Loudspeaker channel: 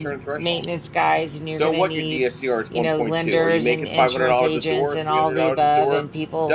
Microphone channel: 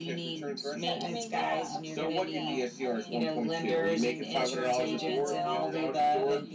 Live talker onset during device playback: 0.6 s

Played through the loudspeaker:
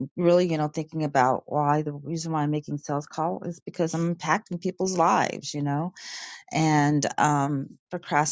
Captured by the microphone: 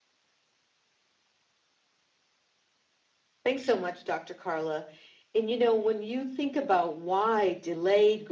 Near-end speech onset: 3.5 s

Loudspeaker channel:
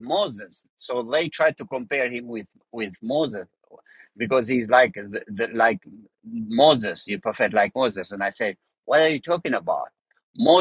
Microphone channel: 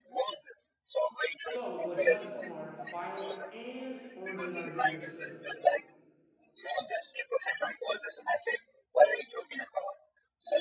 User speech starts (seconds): 1.5 s

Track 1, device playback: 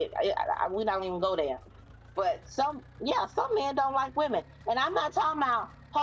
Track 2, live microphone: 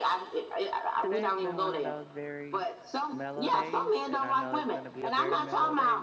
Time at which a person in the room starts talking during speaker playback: 1.0 s

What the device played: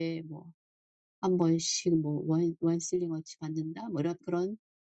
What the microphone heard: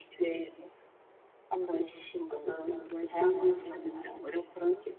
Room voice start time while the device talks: 2.3 s

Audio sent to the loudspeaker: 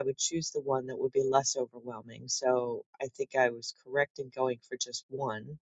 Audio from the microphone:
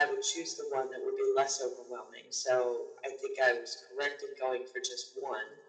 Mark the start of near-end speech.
none

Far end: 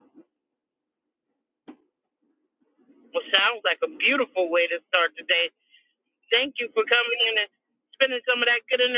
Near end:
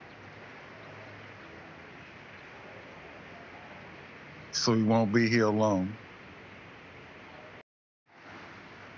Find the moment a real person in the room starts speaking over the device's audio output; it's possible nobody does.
4.5 s

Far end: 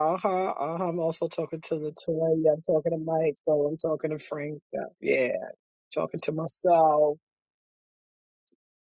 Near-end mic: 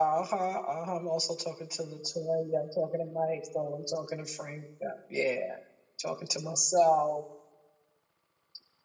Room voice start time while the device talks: none

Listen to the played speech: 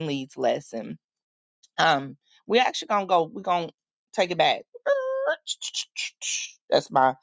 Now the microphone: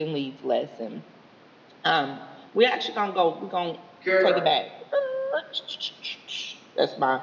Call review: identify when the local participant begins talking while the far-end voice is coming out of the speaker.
4.0 s

